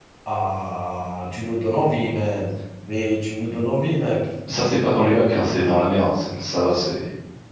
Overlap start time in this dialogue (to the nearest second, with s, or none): none